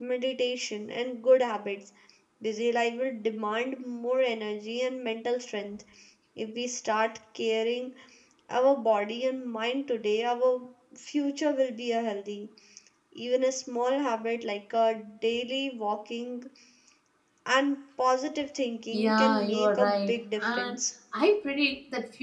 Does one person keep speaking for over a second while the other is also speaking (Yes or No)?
Yes